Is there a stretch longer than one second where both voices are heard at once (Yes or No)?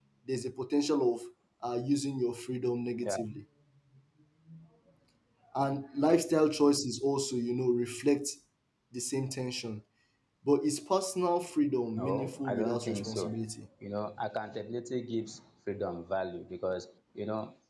Yes